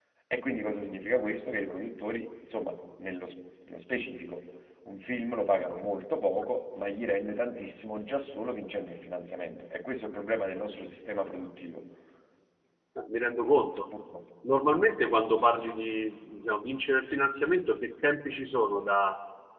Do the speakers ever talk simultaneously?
No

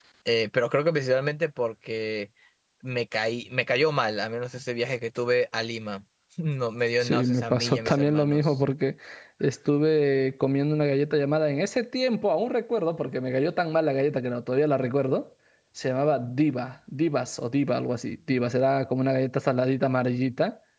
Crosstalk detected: Yes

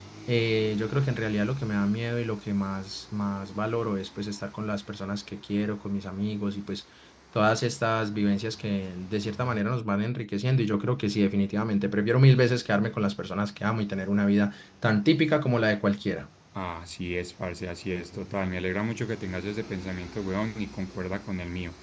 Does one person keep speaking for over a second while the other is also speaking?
No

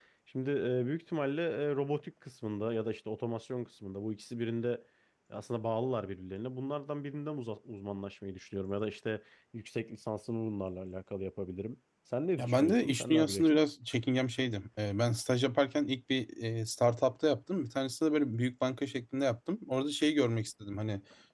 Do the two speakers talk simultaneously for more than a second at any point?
Yes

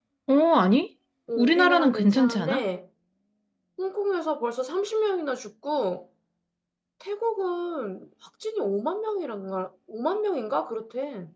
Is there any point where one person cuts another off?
Yes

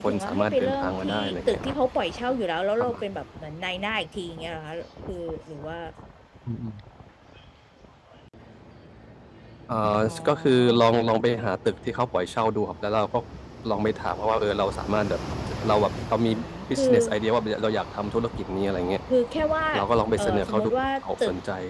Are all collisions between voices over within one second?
No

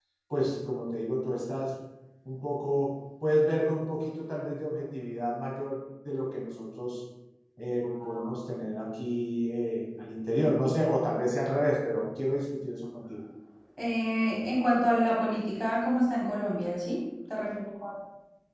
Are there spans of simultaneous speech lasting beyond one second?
No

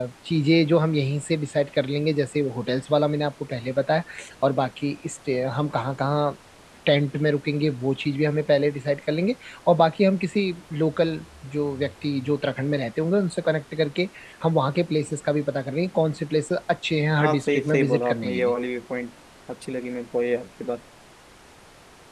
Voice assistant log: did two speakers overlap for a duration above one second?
Yes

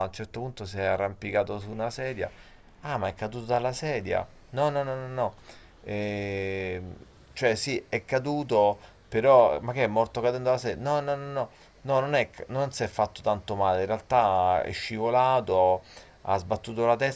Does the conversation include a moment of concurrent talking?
No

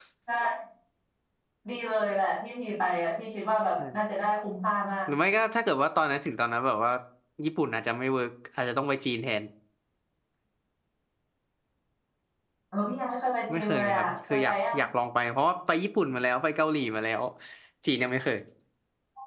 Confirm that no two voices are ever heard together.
No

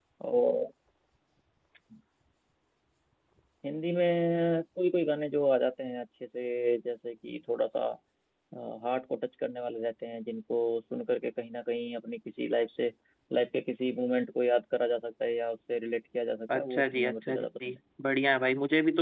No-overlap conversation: No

